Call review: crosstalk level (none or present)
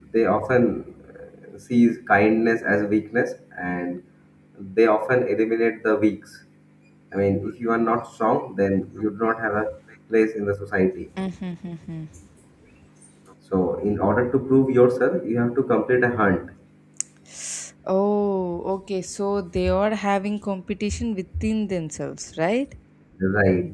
none